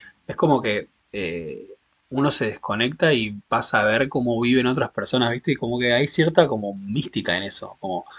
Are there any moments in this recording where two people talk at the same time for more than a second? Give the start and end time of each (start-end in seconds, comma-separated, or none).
none